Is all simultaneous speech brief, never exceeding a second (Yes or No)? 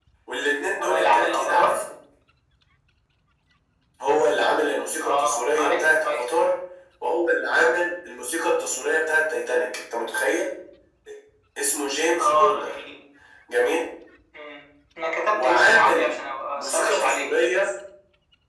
No